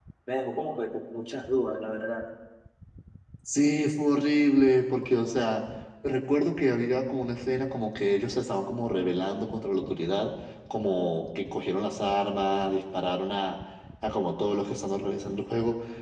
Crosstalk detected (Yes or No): No